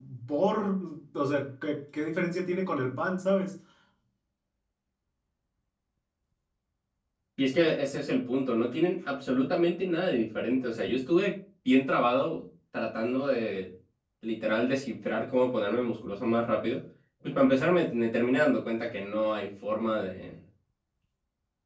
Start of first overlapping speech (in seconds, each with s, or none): none